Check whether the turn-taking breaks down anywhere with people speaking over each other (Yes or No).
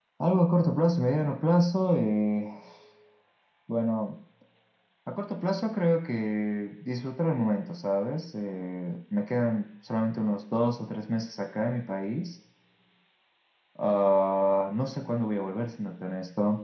No